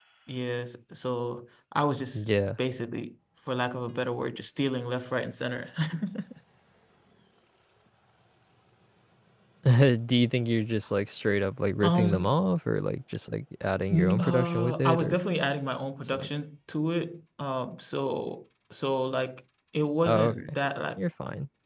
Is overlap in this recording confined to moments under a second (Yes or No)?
No